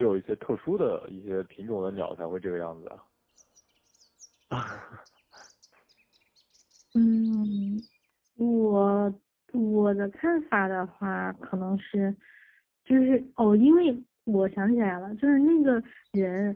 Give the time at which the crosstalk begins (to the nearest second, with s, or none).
none